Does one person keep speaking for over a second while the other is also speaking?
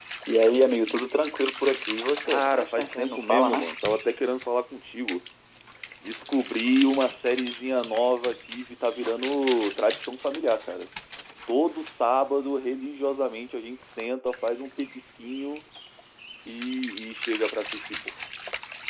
Yes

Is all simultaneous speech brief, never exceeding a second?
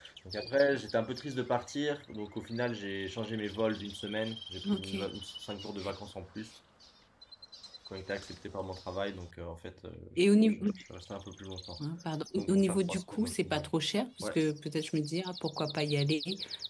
No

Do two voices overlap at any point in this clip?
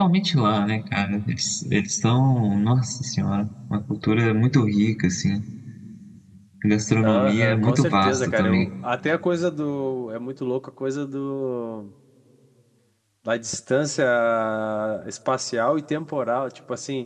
Yes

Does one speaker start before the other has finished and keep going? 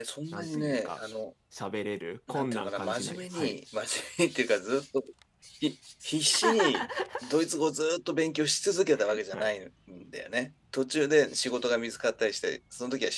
Yes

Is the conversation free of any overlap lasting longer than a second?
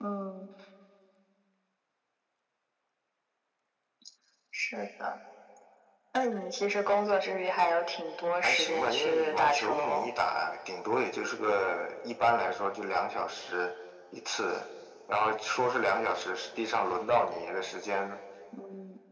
No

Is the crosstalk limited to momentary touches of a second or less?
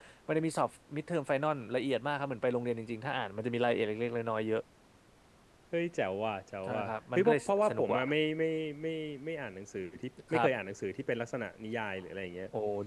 No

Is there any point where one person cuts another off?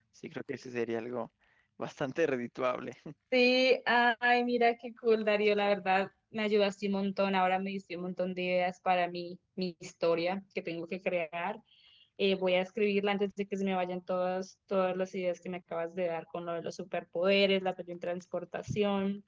No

